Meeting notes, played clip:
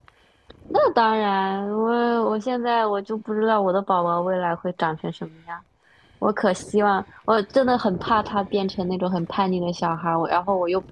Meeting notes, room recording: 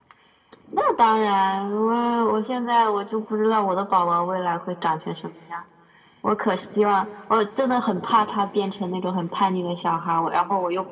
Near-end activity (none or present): none